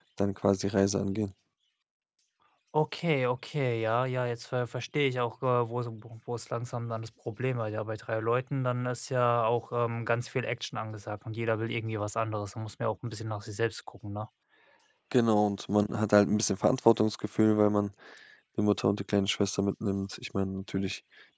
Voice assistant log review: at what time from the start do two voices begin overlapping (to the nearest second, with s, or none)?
none